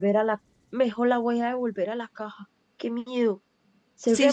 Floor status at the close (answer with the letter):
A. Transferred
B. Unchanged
A